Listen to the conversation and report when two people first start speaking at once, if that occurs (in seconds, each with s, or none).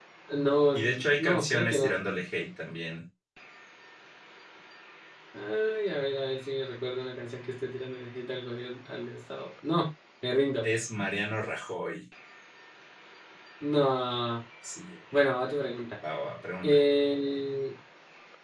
0.7 s